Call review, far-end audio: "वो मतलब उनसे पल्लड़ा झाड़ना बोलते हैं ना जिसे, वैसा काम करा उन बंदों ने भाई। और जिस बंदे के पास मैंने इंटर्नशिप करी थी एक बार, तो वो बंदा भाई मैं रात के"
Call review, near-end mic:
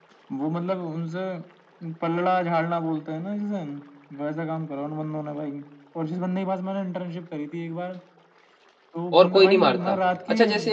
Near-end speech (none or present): present